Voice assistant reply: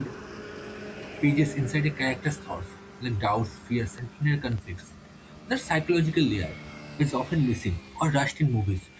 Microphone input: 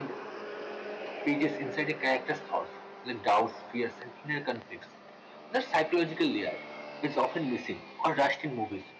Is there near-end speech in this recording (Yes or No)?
No